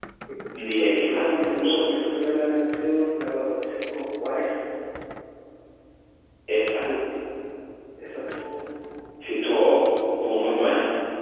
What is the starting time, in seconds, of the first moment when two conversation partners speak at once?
0.6 s

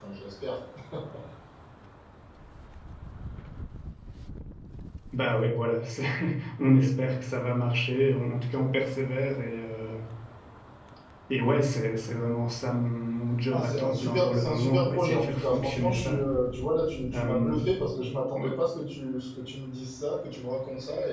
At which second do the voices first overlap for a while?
13.5 s

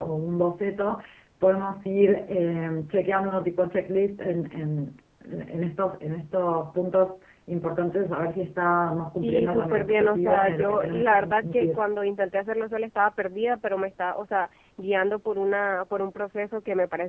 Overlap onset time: 9.2 s

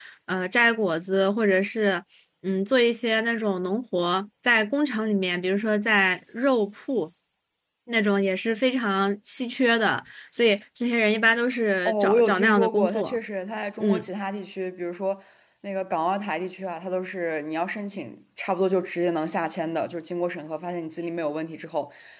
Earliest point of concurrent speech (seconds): 11.8 s

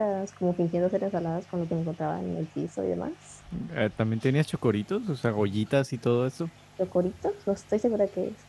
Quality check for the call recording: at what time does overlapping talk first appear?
none

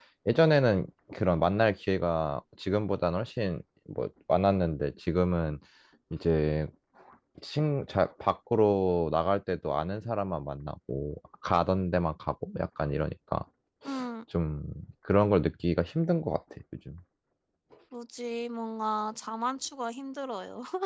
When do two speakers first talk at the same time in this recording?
none

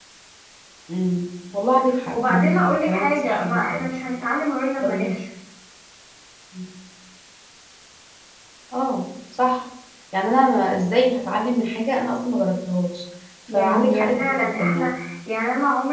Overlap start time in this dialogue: 2.1 s

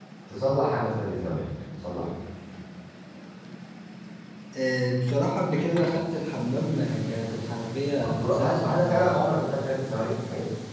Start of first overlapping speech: 8.0 s

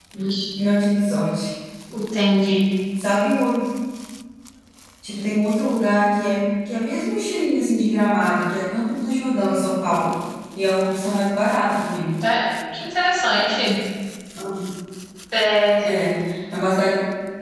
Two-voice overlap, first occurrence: none

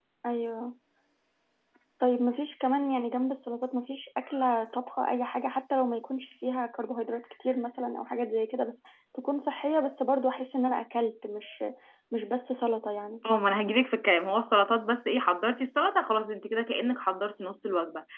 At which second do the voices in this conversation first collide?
none

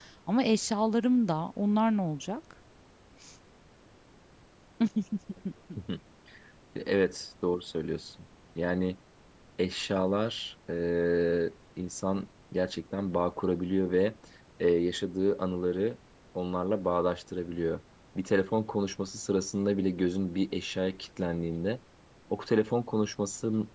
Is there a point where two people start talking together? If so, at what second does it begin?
none

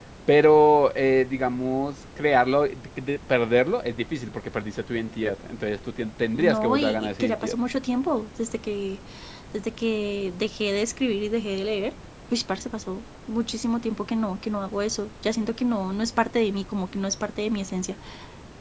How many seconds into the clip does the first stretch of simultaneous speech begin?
6.3 s

